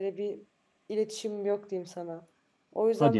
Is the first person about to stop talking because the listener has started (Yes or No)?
No